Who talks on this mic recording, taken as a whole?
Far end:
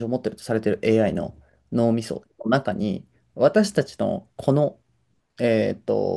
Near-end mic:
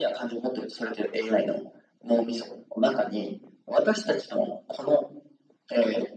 echo only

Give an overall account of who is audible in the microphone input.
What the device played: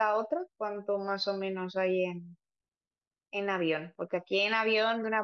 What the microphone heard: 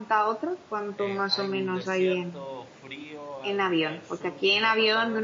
both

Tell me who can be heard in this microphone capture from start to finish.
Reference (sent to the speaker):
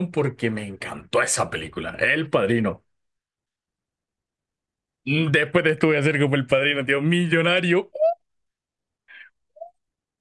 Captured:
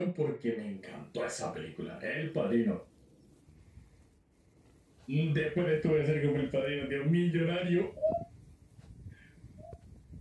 echo only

